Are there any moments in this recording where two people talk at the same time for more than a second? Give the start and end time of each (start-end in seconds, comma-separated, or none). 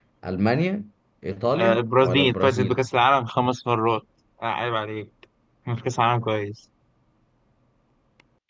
1.6-2.8